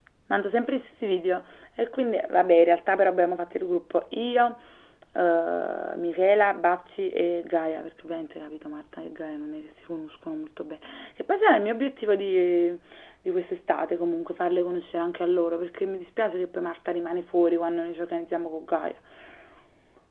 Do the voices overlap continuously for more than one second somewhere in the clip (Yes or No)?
No